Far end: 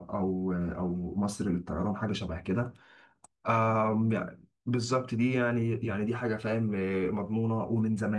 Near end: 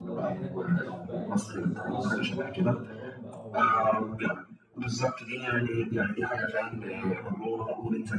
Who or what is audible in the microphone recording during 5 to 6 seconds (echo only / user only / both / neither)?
echo only